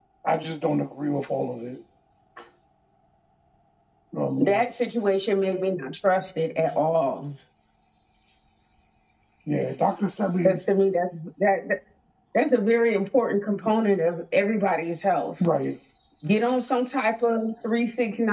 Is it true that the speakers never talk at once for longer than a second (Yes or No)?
Yes